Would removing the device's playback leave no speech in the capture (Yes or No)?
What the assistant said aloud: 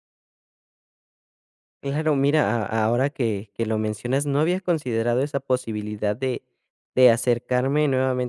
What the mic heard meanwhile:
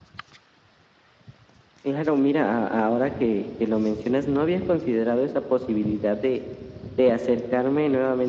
Yes